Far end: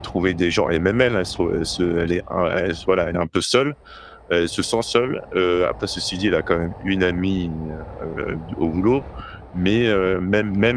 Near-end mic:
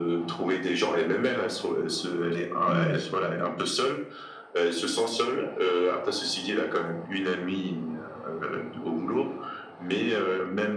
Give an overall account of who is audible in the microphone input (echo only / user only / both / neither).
both